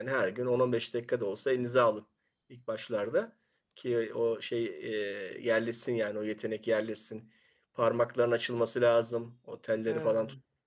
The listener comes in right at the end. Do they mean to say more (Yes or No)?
No